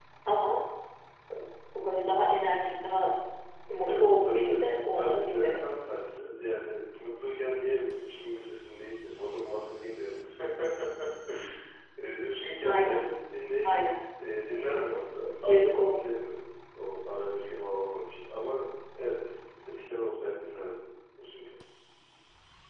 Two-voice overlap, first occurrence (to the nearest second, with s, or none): 4 s